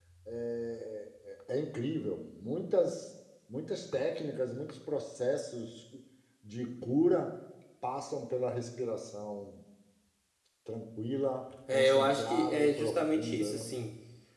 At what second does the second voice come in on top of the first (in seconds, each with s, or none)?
11.7 s